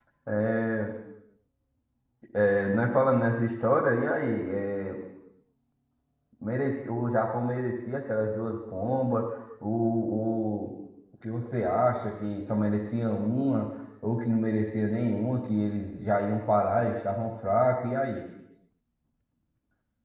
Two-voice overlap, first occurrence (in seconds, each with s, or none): none